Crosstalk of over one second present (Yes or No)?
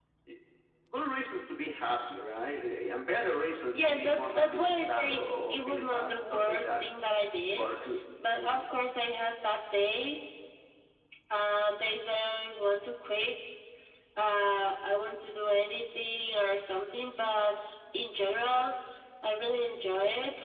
Yes